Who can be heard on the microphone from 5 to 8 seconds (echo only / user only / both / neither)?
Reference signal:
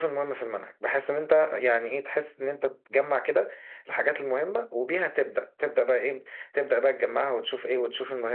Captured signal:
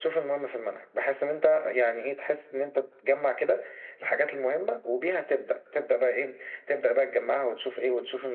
echo only